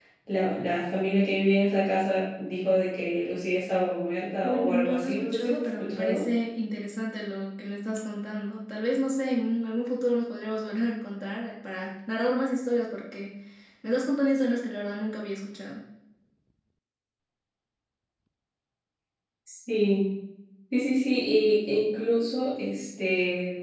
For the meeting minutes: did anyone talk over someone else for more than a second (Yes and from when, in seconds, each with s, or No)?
Yes, from 4.4 s